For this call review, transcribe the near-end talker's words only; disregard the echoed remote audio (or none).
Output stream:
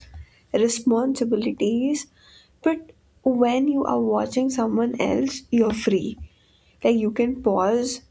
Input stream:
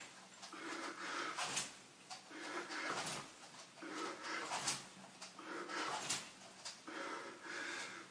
none